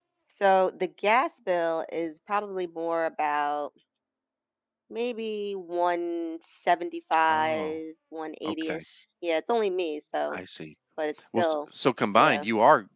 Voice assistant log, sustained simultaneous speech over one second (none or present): none